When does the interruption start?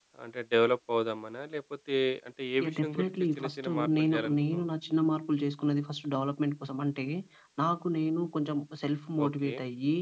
2.6 s

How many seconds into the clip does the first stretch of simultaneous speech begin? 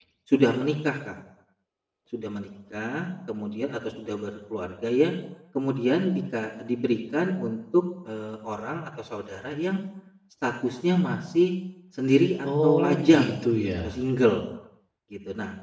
12.6 s

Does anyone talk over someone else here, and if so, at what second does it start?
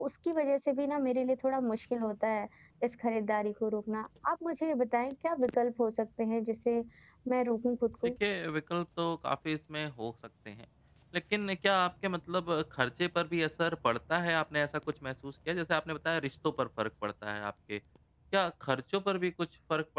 none

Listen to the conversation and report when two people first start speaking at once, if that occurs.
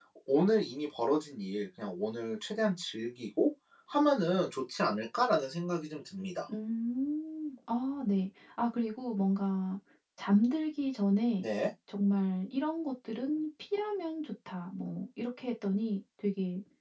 none

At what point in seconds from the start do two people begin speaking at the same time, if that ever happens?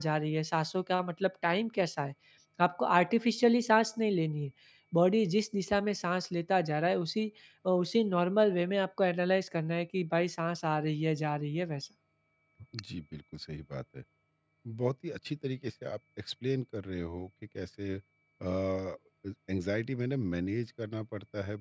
none

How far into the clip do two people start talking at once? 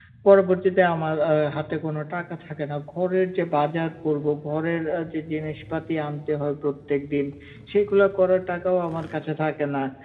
none

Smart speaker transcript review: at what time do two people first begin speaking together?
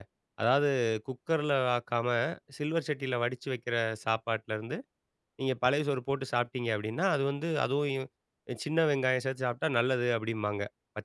none

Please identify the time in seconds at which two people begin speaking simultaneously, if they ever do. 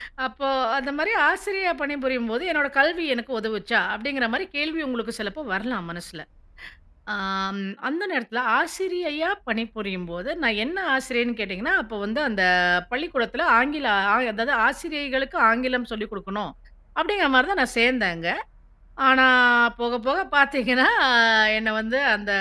none

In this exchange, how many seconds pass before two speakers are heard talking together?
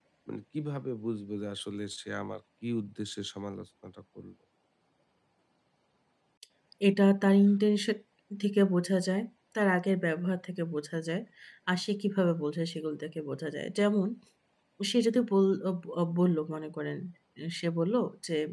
none

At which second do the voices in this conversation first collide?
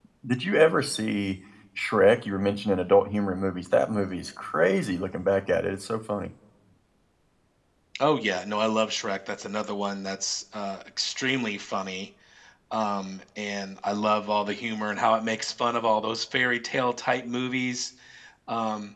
none

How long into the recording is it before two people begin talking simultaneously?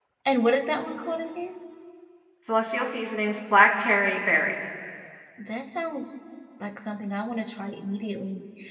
none

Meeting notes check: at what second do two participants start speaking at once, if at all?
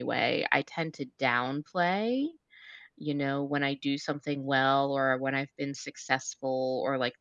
none

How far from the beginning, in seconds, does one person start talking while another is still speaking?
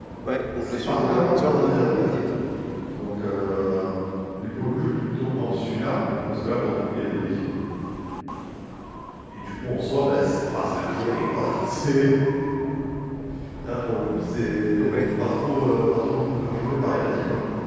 0.6 s

